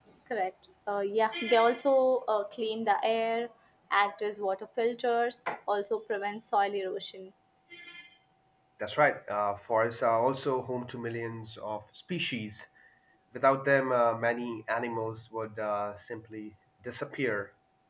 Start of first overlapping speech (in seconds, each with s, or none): none